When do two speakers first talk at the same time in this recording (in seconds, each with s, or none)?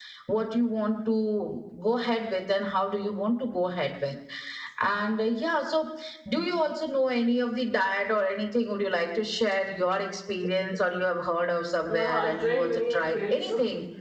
11.9 s